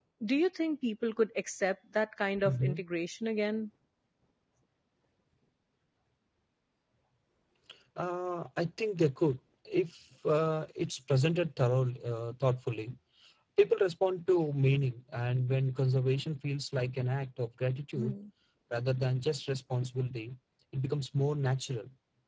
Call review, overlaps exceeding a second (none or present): none